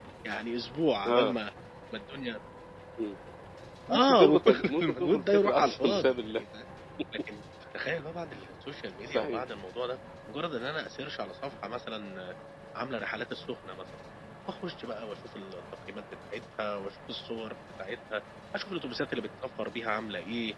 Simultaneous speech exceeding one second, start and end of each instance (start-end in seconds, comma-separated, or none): 3.9-6.4